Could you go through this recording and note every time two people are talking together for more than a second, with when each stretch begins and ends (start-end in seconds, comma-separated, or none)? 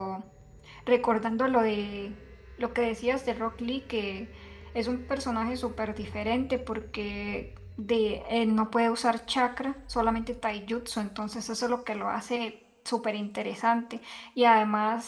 none